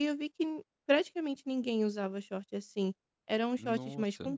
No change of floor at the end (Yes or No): Yes